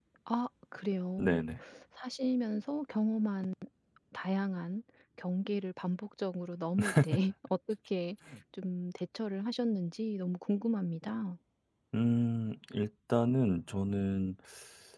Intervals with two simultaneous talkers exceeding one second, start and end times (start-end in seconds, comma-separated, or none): none